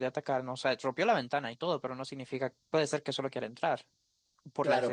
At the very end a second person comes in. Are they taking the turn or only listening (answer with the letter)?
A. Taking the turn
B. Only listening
A